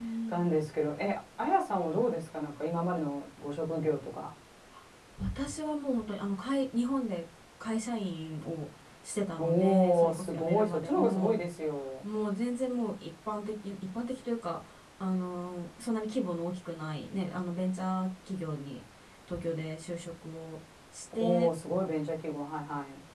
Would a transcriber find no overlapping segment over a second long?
No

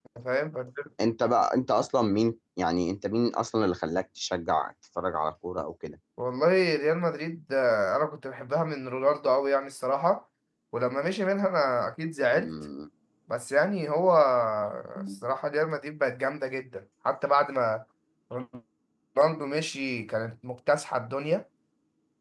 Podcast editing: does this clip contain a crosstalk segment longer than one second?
No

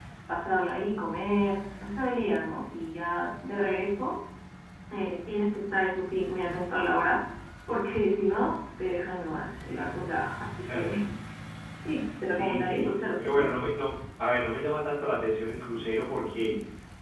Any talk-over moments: Yes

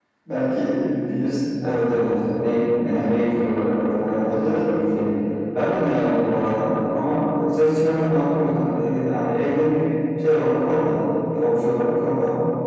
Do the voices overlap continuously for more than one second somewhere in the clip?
No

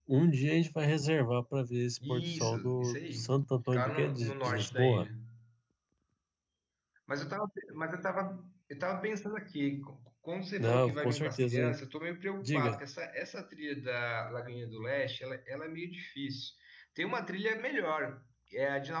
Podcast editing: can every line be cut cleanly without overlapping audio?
No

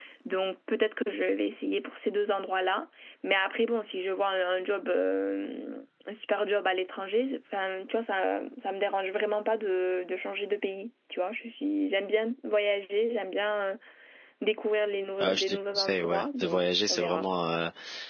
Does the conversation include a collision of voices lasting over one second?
Yes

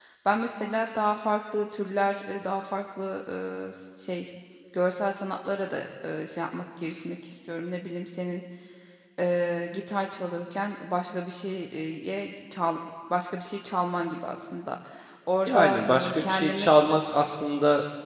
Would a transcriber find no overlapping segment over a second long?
No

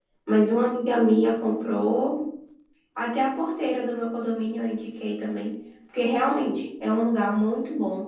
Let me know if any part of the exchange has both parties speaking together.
No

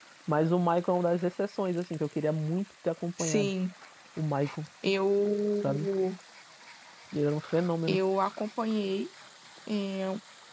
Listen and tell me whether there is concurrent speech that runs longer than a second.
No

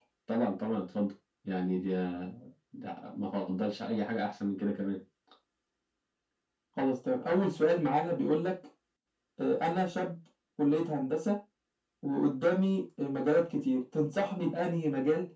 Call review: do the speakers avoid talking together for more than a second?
Yes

